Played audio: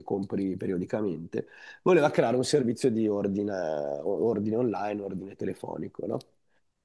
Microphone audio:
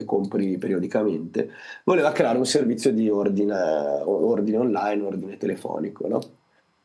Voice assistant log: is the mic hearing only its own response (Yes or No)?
Yes